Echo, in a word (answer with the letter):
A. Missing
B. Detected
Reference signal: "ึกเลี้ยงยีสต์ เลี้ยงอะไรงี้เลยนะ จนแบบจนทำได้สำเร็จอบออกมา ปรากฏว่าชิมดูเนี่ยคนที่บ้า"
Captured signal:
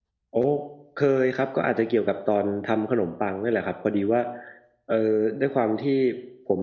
A